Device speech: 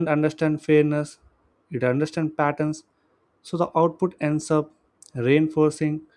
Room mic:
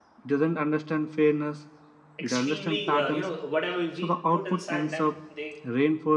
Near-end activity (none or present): present